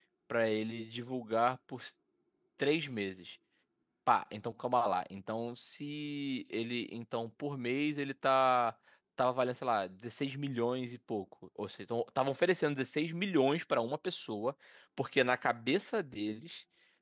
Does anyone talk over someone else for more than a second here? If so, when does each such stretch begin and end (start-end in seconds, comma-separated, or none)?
none